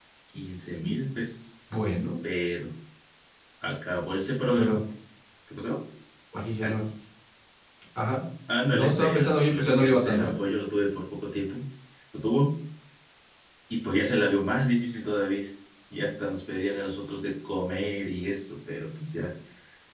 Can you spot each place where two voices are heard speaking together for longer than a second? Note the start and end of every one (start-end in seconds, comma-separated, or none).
8.7-10.3